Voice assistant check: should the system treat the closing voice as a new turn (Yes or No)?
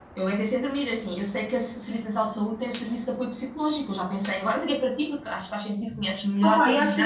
Yes